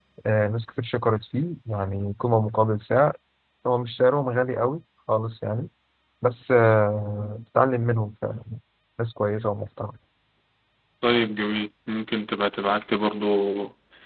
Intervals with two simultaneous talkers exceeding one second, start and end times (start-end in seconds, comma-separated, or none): none